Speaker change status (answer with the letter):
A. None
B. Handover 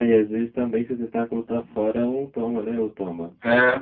B